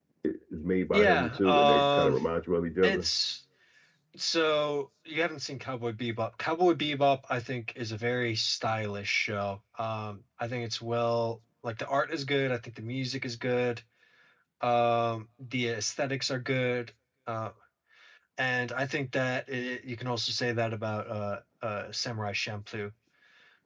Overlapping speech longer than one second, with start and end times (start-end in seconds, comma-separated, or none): 0.9-2.2